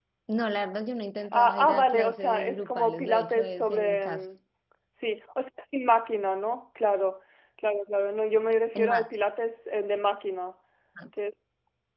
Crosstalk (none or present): present